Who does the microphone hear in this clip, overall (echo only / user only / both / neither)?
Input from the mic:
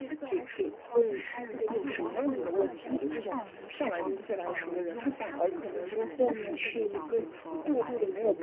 both